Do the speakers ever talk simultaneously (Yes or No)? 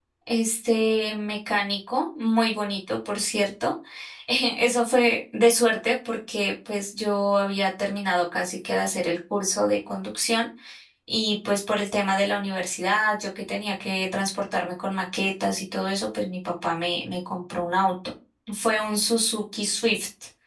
No